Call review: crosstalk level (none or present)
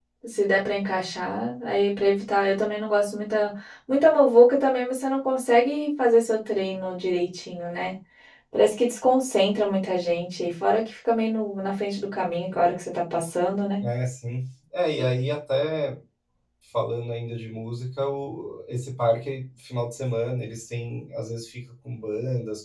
none